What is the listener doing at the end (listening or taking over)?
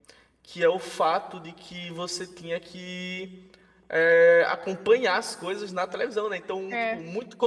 listening